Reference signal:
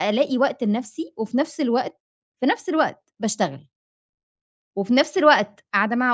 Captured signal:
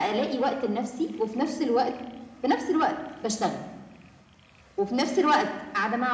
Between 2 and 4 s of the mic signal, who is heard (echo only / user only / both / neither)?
echo only